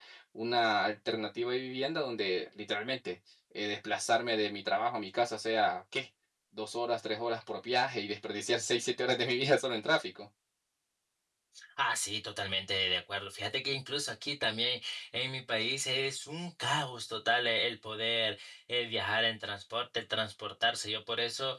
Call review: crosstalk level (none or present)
none